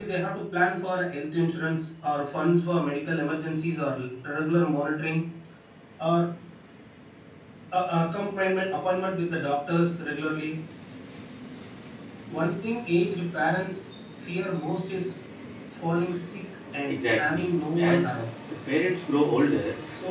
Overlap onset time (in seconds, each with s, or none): 16.9 s